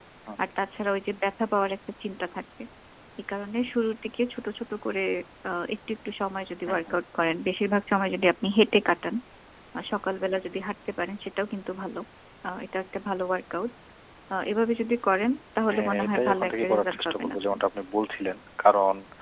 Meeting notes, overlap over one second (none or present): present